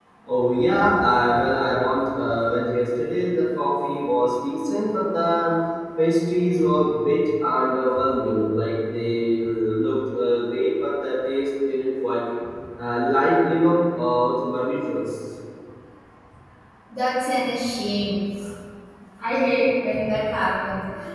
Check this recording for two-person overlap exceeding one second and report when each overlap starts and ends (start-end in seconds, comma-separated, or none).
none